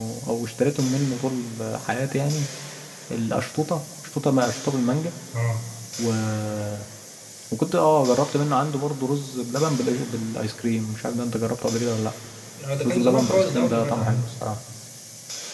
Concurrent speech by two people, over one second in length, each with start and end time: 12.8-14.3

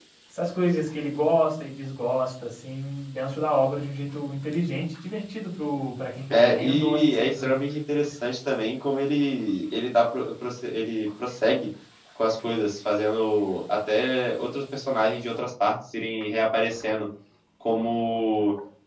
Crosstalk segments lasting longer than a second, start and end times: 6.3-7.6

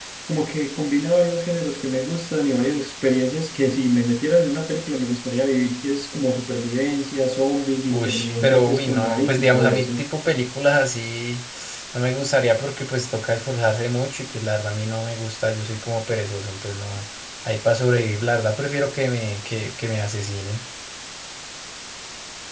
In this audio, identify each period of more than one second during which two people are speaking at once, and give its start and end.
7.9-9.9

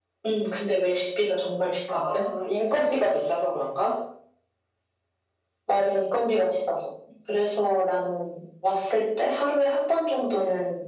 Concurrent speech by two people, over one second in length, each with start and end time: none

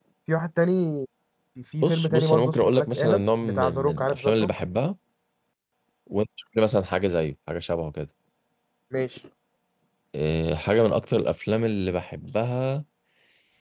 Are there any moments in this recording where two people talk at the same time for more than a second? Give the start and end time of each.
1.8-4.5

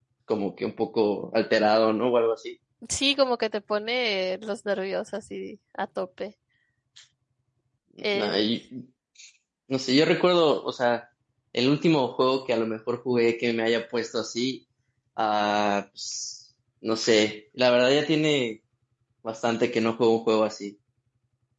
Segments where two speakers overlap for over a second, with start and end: none

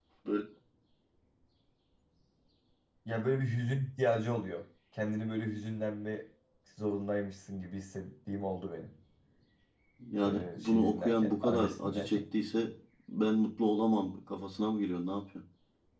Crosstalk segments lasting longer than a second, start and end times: 10.2-12.2

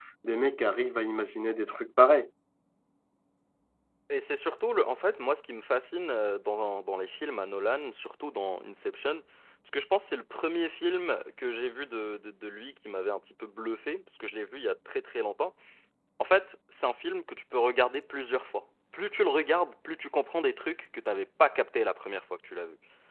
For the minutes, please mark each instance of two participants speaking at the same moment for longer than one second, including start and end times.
none

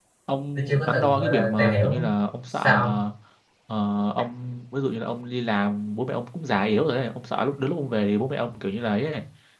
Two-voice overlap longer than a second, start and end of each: 0.6-2.1

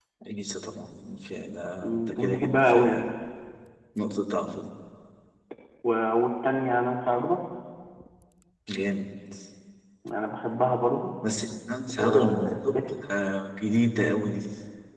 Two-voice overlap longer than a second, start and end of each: 1.8-3.0

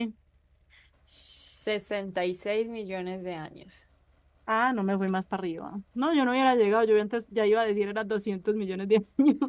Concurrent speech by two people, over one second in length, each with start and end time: none

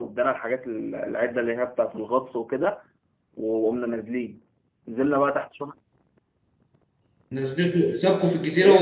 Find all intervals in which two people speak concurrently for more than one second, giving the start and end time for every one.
none

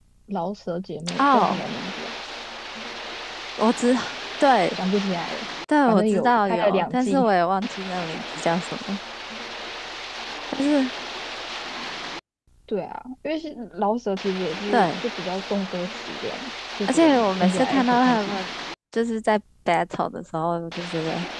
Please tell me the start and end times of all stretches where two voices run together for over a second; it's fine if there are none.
5.9-7.3, 16.9-18.4

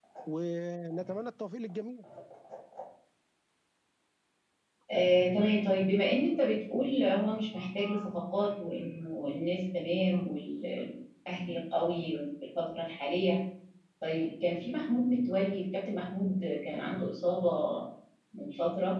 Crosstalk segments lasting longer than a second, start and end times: none

